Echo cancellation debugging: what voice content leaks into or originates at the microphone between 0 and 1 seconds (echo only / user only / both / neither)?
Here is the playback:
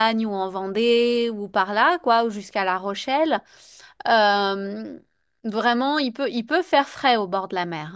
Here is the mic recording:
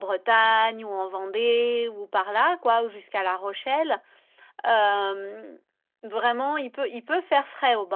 echo only